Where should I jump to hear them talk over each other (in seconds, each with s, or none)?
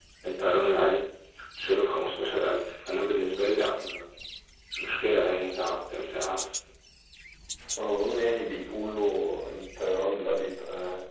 none